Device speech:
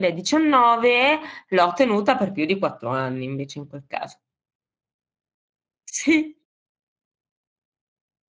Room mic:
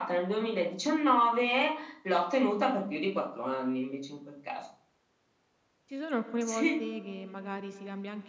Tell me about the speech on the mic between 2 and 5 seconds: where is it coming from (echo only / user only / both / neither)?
echo only